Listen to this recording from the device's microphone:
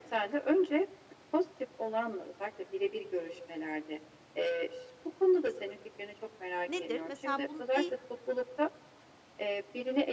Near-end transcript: Nedir? Mesela bun deği

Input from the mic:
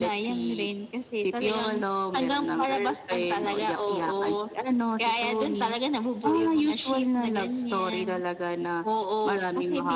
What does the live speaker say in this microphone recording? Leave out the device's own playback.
none

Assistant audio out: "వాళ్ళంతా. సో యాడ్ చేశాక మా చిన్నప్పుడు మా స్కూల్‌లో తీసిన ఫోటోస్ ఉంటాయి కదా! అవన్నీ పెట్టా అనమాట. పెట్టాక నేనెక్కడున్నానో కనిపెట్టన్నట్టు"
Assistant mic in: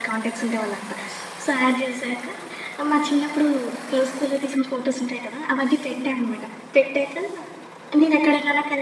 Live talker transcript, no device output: none

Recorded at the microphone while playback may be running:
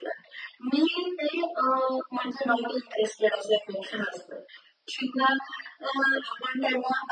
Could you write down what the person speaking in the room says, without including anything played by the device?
none

